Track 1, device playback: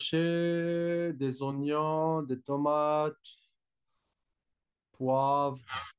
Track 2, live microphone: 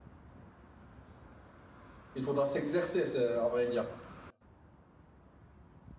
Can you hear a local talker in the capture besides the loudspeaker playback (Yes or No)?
Yes